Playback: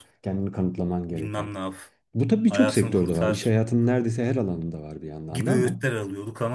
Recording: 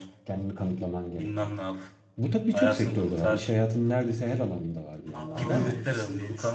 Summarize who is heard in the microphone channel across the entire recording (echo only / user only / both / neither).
both